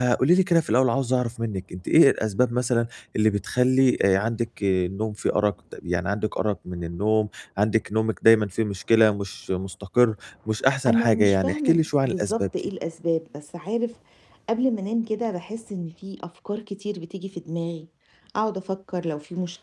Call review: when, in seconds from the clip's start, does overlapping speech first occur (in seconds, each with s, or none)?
10.9 s